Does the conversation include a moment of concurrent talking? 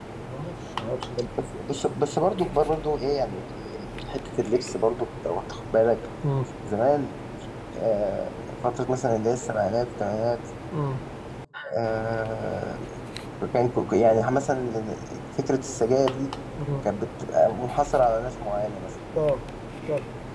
No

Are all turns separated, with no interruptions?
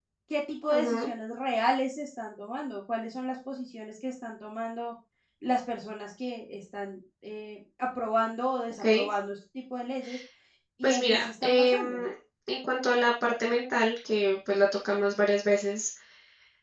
No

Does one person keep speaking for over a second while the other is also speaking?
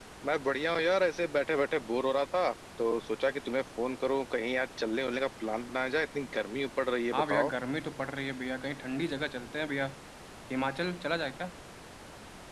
No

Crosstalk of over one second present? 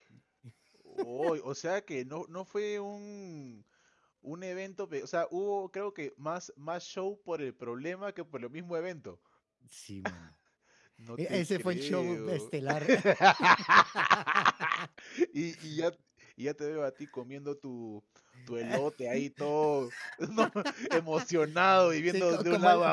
Yes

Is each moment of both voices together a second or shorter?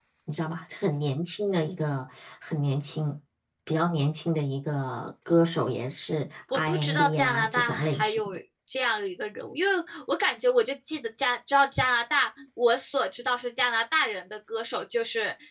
No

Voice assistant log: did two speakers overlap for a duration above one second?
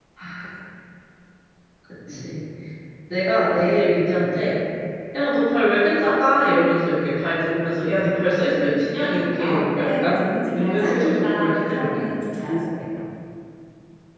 Yes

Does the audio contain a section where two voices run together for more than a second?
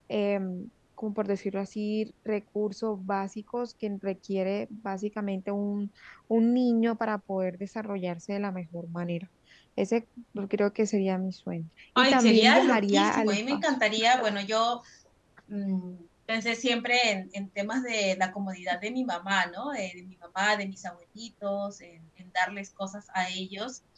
Yes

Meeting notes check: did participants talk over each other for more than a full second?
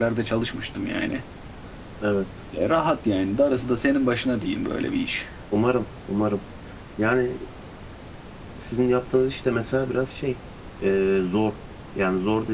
No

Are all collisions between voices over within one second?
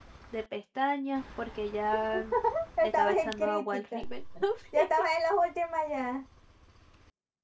No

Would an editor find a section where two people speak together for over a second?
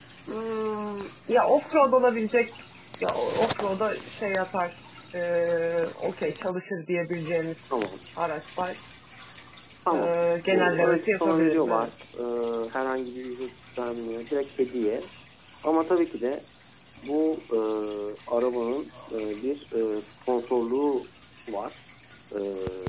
Yes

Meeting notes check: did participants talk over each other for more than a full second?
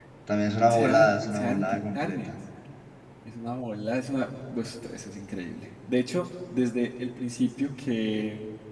Yes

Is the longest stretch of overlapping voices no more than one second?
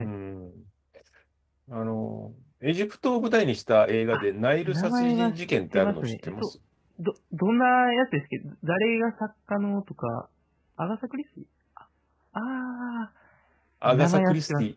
No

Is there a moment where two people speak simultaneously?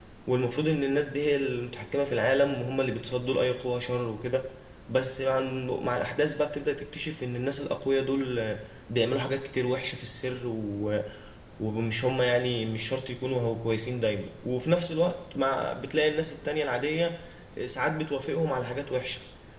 No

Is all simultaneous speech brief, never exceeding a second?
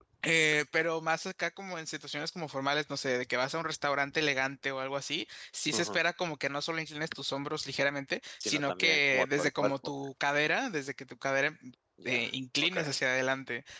No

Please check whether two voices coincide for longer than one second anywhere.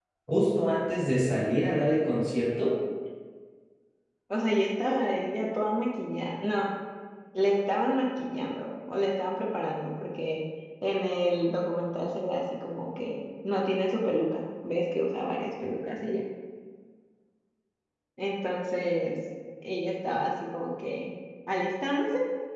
No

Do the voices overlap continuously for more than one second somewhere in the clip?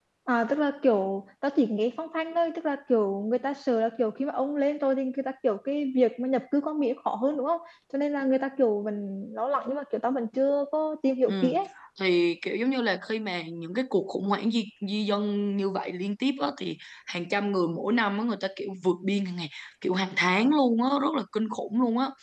No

